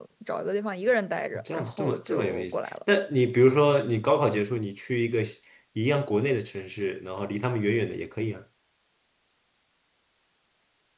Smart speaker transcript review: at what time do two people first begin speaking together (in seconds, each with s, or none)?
1.3 s